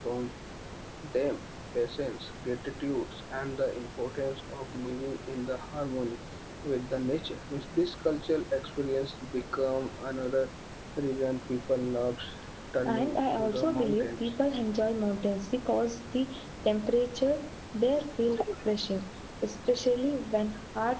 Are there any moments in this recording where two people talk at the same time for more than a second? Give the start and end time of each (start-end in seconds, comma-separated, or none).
12.8-14.3